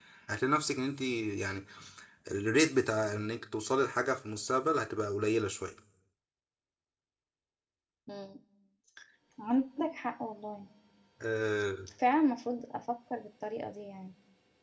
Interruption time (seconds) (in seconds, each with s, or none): none